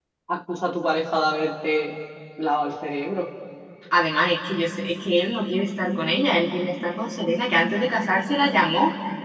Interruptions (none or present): none